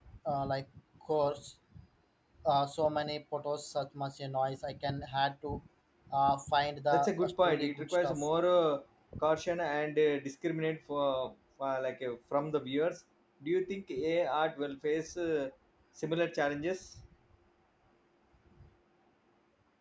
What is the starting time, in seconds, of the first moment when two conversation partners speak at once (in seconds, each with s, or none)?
6.9 s